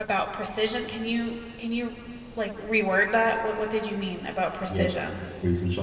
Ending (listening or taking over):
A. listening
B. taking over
B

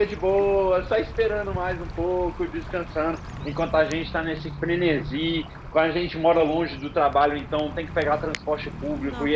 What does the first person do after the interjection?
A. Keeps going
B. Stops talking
A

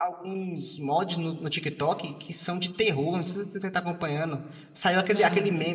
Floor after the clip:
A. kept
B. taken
A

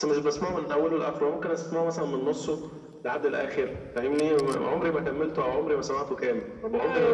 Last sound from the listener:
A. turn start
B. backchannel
A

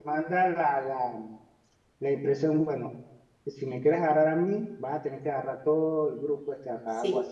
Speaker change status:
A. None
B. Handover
B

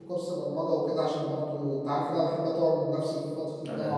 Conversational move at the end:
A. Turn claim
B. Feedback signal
B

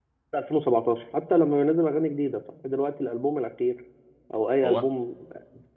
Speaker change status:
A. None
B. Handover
A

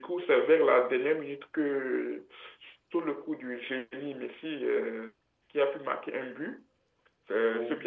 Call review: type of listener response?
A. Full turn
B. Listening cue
B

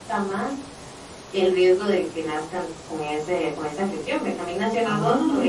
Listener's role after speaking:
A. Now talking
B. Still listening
B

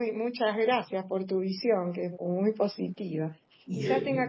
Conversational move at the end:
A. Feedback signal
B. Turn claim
A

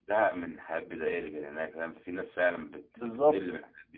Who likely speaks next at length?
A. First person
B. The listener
B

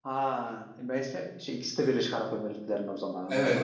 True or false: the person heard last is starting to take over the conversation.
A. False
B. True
B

